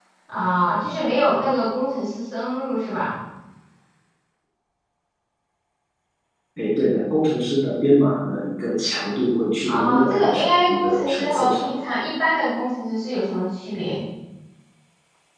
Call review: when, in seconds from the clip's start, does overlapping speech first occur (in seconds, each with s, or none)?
9.6 s